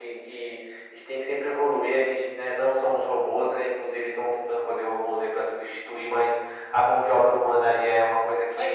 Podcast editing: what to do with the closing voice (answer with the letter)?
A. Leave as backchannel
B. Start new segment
B